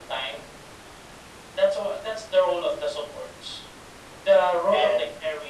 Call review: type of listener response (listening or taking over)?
listening